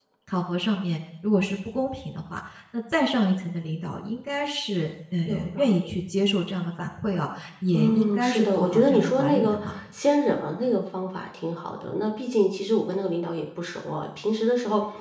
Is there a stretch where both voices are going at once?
Yes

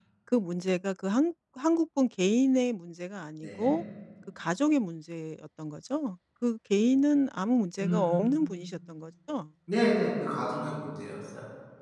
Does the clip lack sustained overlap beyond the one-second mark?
Yes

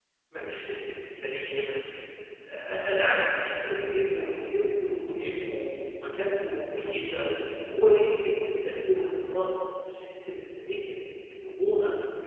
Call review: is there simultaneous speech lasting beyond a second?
No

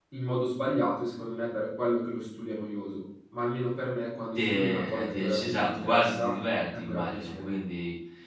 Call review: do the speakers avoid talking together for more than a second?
No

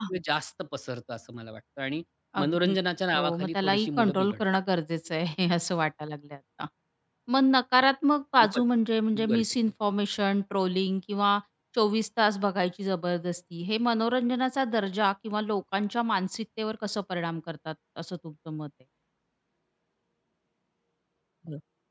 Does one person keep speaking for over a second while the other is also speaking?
Yes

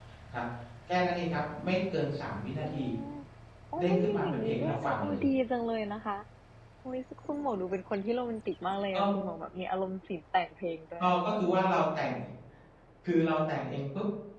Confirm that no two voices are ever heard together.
No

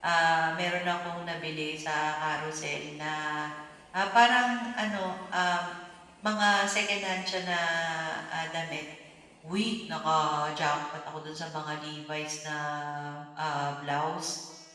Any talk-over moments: No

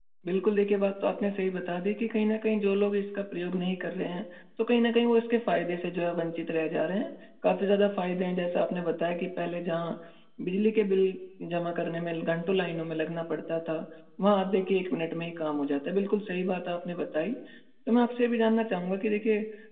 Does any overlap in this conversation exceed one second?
No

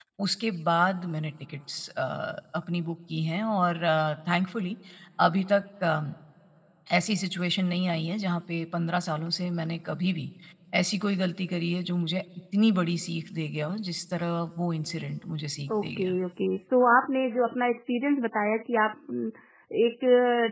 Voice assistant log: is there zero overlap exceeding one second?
Yes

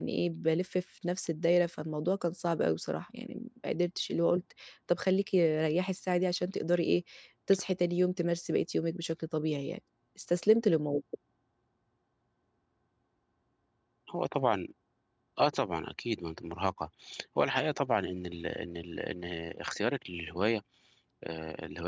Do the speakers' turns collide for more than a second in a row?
No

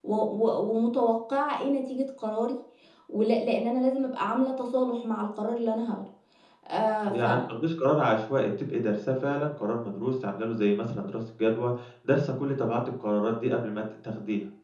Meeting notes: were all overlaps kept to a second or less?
Yes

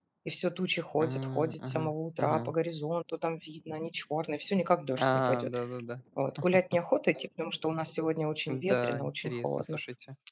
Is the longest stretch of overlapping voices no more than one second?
No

